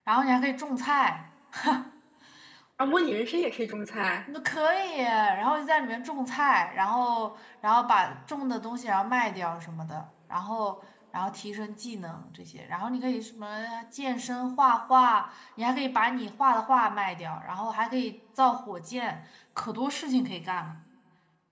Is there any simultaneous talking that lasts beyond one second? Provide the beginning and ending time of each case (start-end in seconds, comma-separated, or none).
none